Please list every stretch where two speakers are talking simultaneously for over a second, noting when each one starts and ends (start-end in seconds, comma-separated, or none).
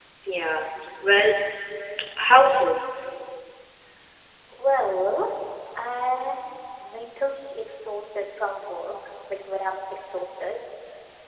none